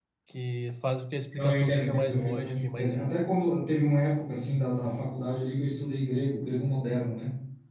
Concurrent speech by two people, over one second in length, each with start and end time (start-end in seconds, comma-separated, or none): 1.4-3.1